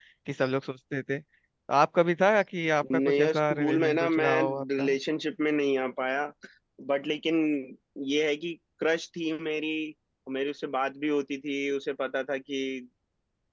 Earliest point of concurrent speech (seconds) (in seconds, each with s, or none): 2.8 s